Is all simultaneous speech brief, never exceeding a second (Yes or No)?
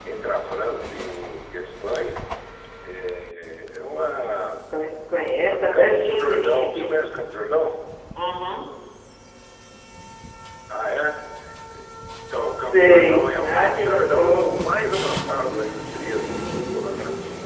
No